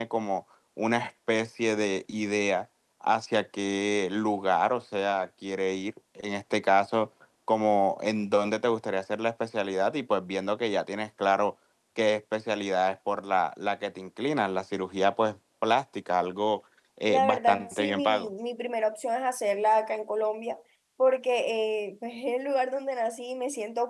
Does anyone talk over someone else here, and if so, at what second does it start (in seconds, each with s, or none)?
17.1 s